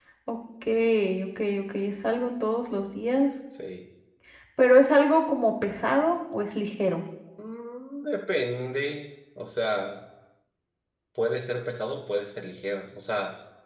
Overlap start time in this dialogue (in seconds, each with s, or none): none